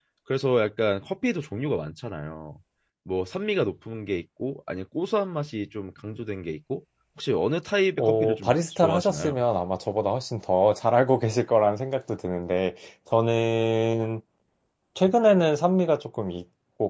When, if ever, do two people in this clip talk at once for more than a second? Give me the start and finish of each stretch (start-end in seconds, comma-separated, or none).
8.0-9.4